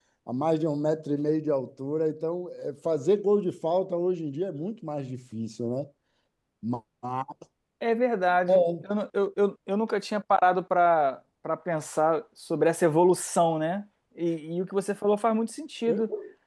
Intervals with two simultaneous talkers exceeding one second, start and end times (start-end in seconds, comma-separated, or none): none